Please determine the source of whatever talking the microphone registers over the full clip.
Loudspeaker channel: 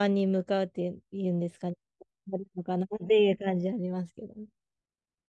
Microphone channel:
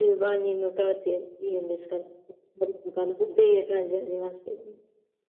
echo only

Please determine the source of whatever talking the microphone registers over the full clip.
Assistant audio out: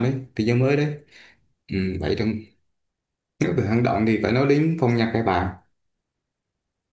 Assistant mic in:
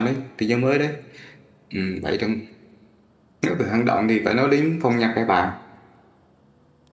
echo only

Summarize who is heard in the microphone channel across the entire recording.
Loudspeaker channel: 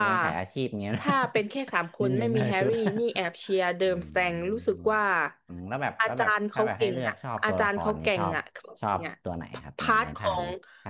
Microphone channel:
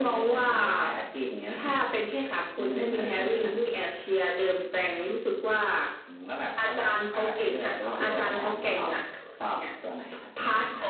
both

